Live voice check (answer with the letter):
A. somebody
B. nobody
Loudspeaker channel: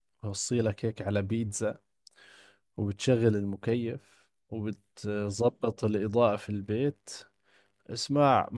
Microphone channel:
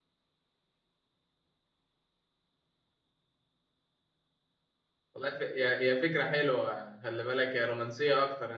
A